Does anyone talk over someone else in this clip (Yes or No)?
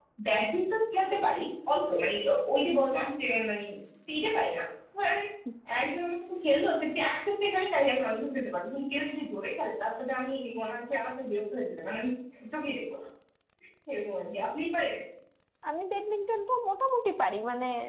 No